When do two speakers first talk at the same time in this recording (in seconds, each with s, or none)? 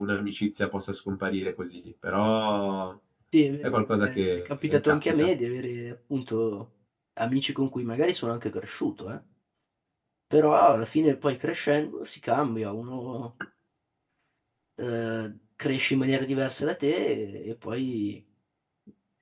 3.6 s